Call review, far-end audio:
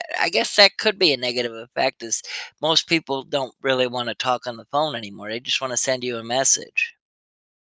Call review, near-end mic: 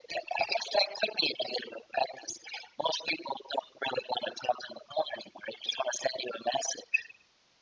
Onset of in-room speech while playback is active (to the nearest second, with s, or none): none